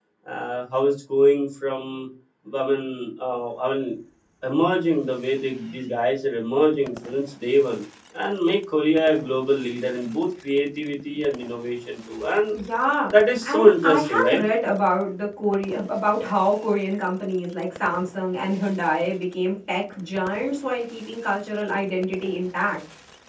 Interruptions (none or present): present